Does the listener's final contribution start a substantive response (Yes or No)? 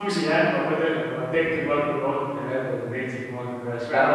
Yes